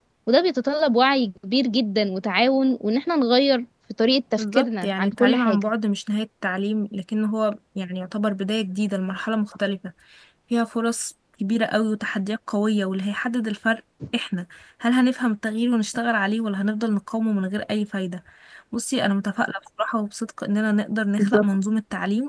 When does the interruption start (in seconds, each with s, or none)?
4.4 s